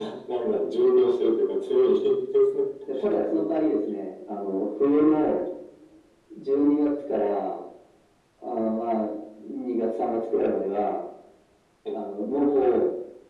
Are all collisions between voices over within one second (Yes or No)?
Yes